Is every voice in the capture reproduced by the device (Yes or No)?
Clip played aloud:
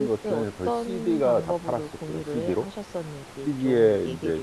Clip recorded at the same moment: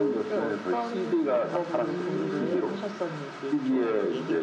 No